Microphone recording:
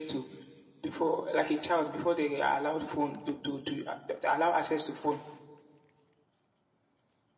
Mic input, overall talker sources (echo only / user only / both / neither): echo only